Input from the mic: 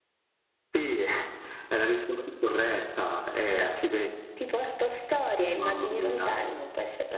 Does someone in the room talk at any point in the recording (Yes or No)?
No